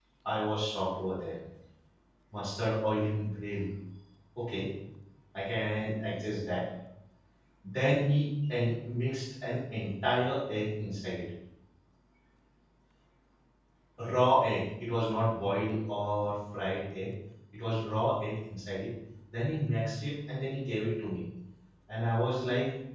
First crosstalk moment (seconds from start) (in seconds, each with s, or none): none